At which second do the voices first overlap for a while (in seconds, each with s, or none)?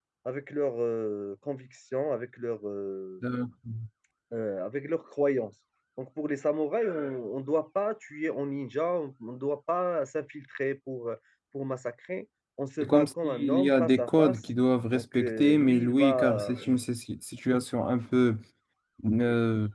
12.8 s